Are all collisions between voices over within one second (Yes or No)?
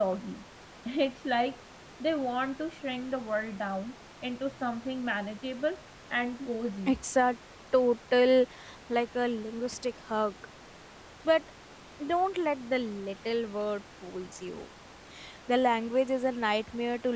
Yes